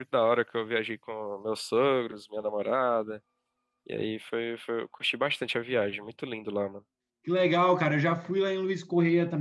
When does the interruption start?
none

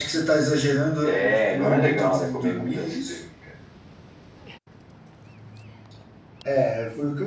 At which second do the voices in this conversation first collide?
1 s

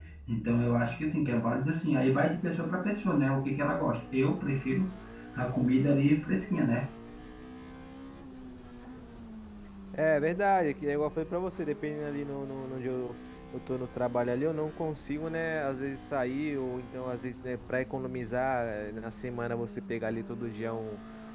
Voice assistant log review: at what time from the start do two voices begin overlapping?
none

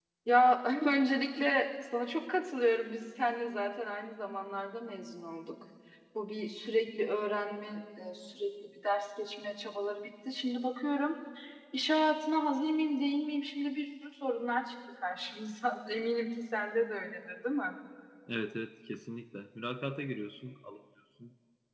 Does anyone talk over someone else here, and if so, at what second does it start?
none

